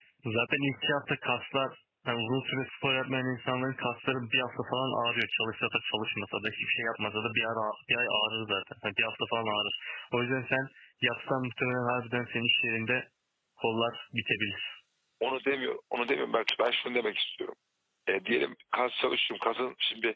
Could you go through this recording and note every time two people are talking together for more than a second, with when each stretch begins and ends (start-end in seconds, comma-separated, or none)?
none